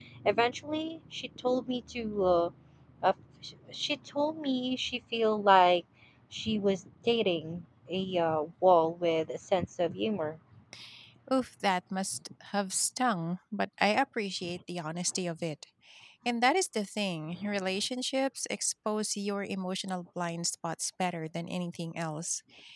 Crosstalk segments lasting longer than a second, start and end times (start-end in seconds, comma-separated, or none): none